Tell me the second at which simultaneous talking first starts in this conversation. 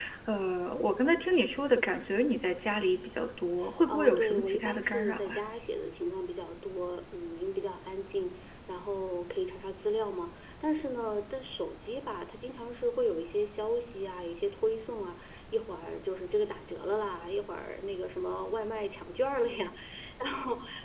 3.9 s

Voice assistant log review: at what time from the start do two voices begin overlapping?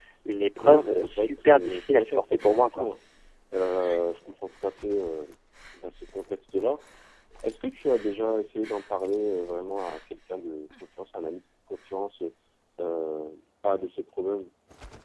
0.6 s

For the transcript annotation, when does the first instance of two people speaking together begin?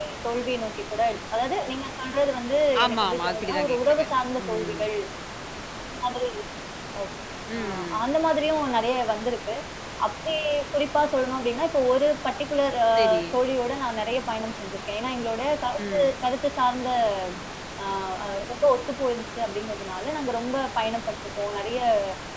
2.8 s

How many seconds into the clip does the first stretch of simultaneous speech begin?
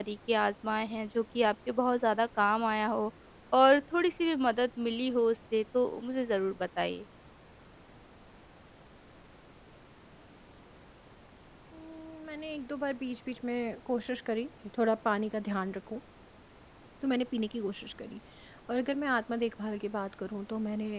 none

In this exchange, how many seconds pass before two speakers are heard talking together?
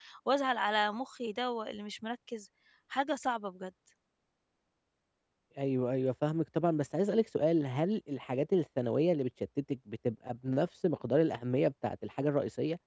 none

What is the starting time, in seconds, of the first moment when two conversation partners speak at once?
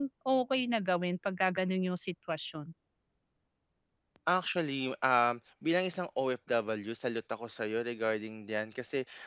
none

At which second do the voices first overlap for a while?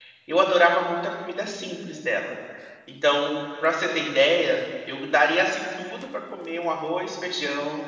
none

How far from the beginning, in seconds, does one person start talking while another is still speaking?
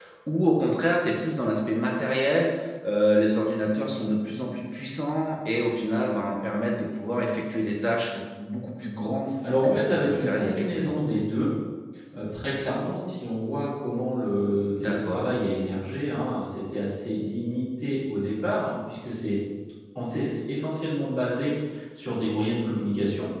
9.6 s

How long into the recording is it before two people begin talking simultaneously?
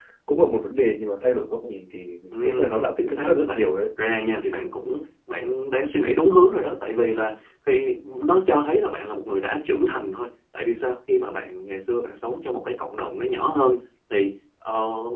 2.3 s

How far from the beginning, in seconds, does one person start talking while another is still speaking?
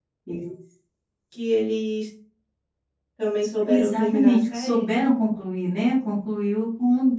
3.7 s

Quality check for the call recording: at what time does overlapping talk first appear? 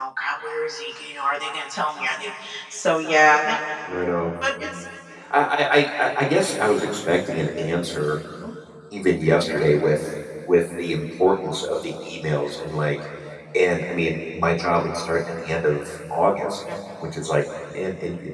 none

